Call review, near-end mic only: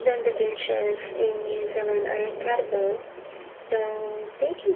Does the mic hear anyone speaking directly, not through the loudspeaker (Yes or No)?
No